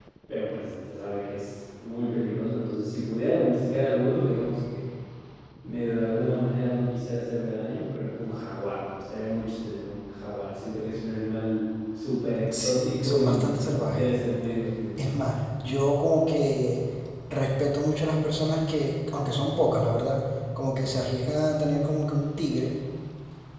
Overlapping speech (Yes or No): Yes